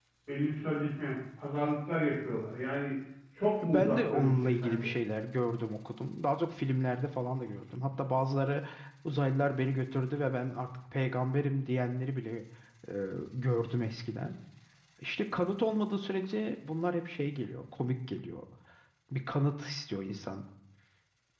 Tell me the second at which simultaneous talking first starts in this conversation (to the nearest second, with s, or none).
4 s